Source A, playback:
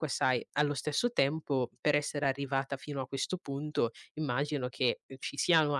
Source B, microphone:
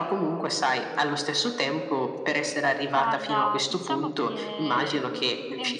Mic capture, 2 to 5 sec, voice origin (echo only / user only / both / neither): both